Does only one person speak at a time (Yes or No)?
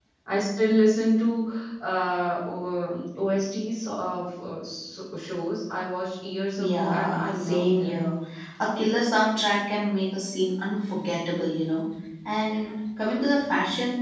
No